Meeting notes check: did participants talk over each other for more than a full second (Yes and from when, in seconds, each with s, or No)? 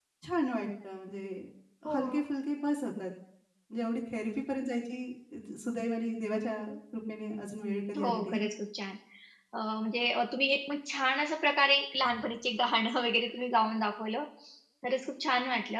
No